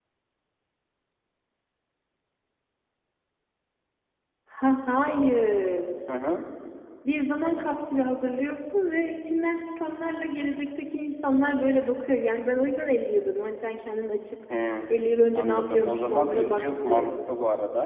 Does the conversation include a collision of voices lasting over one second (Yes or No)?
Yes